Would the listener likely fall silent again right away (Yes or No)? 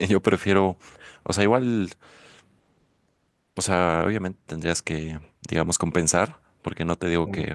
Yes